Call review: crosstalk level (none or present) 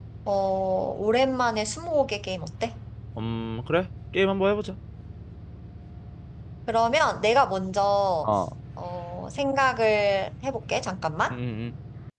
none